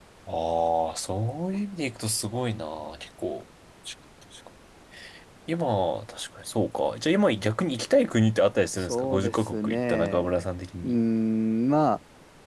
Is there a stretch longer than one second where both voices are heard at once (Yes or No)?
Yes